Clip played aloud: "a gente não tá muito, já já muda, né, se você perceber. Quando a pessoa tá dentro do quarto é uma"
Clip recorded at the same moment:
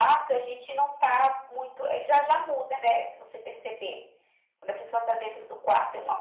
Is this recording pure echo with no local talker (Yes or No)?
Yes